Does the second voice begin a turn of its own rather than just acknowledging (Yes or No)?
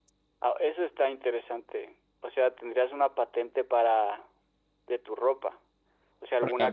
No